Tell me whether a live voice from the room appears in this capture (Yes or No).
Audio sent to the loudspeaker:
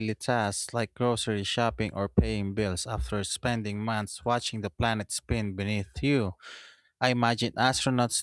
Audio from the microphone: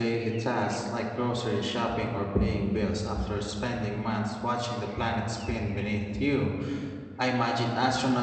No